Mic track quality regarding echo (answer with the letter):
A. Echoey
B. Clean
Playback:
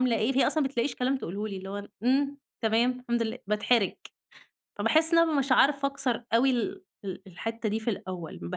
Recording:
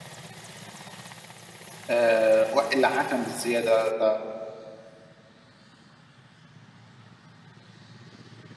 B